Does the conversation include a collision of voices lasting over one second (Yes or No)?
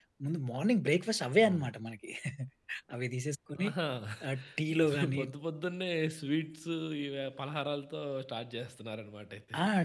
No